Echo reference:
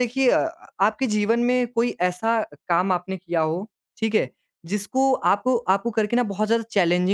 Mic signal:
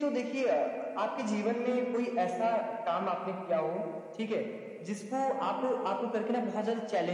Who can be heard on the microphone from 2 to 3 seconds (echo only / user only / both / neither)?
echo only